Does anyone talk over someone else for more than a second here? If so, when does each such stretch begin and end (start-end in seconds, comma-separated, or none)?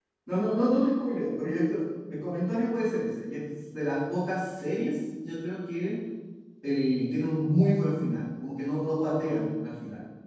none